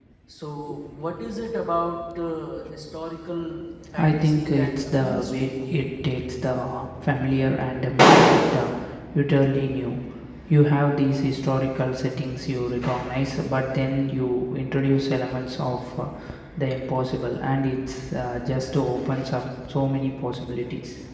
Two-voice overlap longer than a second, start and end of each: 4.0-5.5

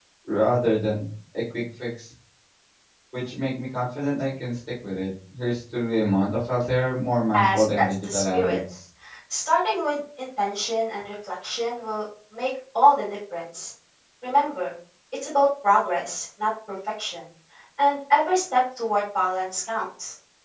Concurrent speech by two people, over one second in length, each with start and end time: 7.3-8.6

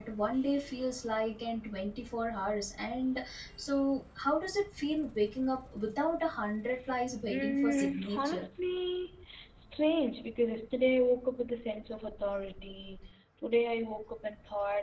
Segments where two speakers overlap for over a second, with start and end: 7.2-8.5

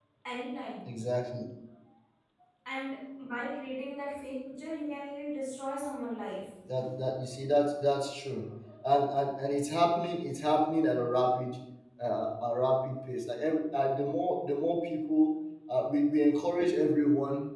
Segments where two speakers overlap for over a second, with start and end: none

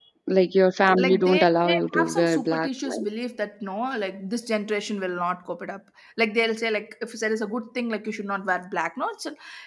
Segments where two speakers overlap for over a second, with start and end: 1.0-3.0

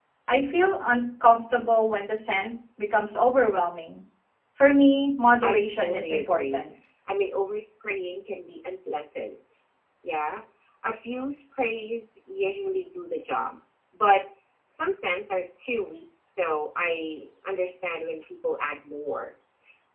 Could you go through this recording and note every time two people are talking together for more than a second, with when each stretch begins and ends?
5.4-6.6

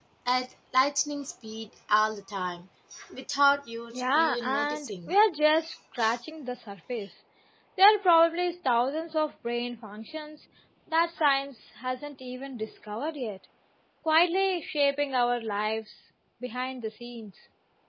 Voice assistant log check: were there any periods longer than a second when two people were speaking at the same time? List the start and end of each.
3.9-5.2

